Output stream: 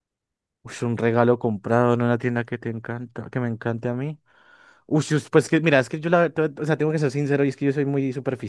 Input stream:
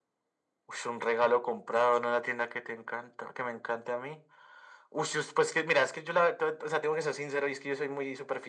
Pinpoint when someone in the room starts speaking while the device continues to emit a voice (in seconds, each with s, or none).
none